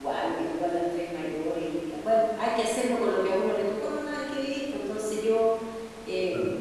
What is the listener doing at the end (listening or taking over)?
listening